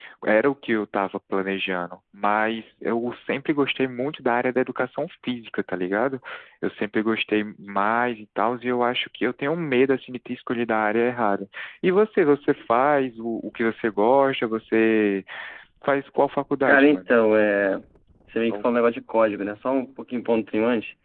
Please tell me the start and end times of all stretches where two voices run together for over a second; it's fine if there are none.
none

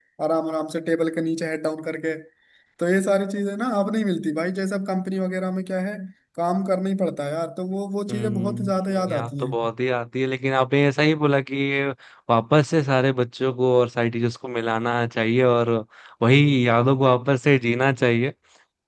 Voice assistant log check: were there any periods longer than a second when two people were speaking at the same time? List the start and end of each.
8.1-9.6

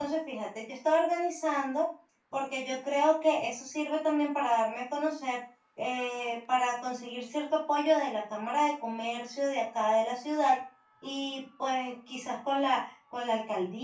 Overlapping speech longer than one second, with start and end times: none

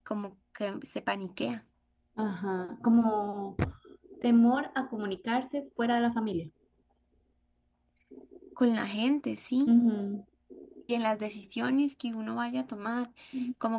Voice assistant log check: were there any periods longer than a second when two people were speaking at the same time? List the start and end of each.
none

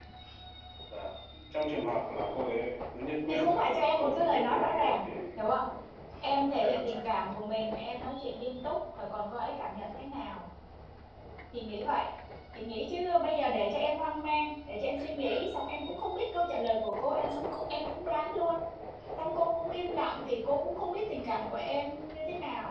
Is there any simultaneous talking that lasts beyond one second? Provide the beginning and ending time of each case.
3.3-5.0

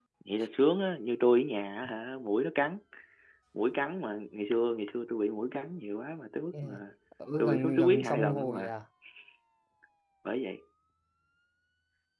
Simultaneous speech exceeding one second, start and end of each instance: 7.4-8.7

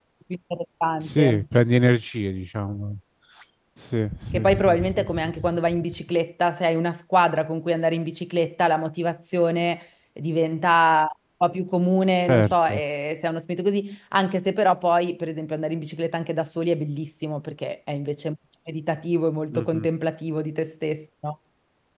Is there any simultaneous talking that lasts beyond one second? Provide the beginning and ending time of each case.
4.3-5.8

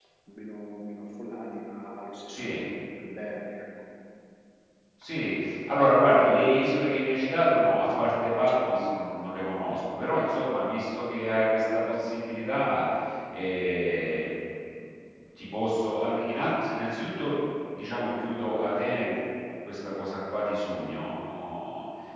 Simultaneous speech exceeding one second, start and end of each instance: none

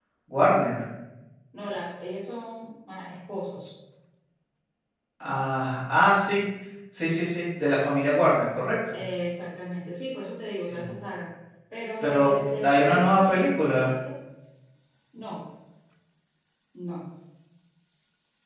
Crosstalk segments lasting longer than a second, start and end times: 12.0-13.9

